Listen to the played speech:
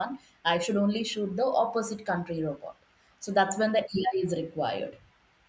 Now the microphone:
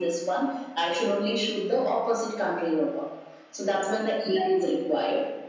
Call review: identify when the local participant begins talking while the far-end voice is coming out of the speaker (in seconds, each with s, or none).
none